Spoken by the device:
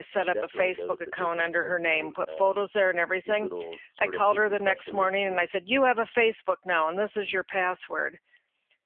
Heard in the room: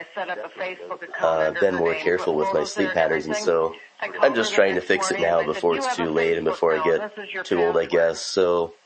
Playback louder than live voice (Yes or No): No